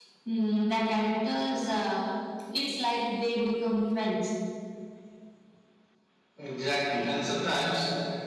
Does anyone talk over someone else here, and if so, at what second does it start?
none

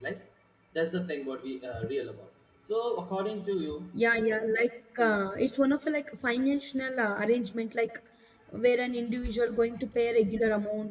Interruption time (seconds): none

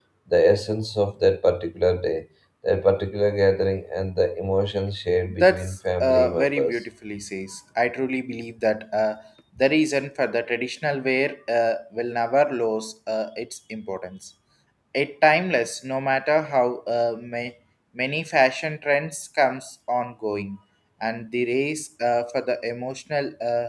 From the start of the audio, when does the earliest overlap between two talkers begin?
5 s

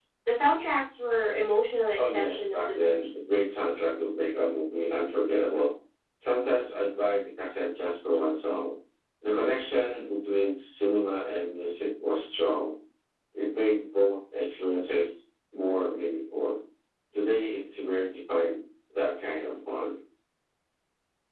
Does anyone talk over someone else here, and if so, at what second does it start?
2 s

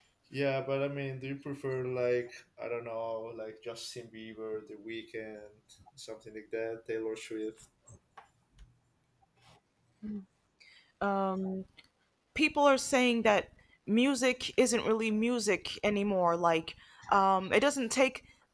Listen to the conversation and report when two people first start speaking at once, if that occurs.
none

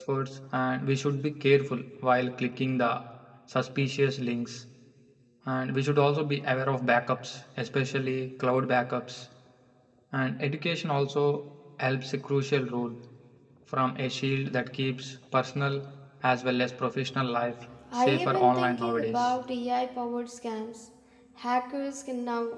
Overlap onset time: 18 s

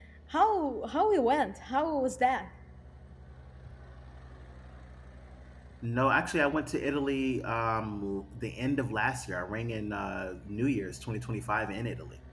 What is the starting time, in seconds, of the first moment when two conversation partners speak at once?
none

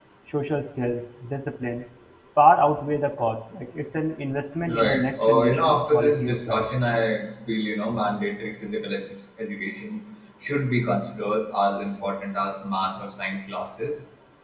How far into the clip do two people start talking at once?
5 s

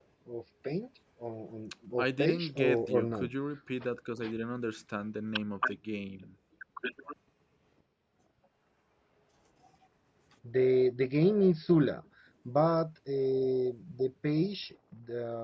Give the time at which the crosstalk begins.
2 s

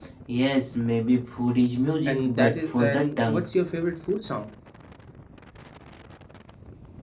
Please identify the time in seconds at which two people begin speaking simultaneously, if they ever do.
2 s

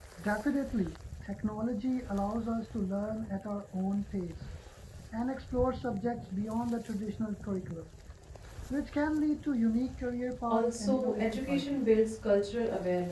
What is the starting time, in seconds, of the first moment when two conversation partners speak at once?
10 s

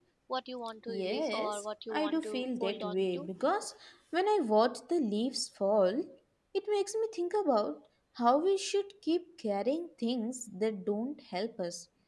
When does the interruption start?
1 s

